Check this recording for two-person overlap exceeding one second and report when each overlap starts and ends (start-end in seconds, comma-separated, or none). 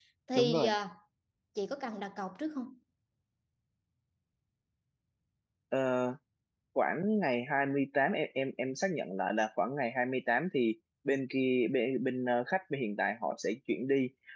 none